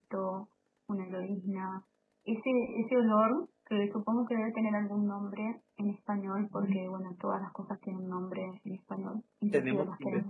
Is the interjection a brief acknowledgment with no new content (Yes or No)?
No